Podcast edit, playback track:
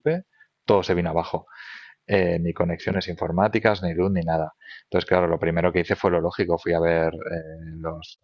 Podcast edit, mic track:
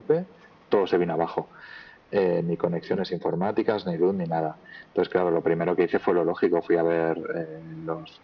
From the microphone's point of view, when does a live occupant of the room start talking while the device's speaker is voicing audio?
none

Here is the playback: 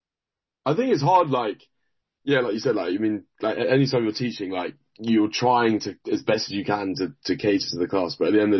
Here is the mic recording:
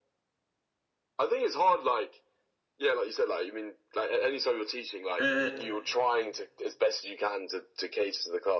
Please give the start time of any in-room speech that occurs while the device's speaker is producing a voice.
5.2 s

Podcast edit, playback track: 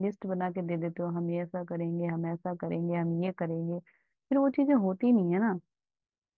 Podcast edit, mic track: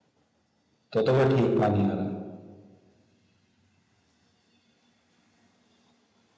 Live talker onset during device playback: 0.9 s

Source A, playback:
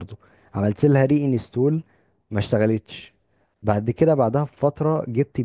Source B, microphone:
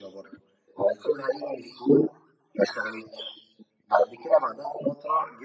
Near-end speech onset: none

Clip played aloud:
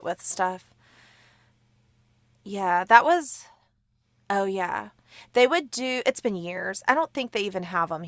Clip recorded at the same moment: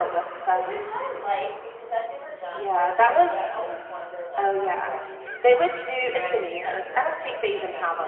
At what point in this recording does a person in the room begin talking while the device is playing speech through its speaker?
0.5 s

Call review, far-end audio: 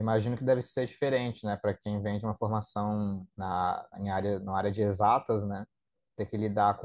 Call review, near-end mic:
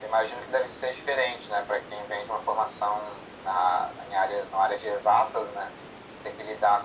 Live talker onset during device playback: none

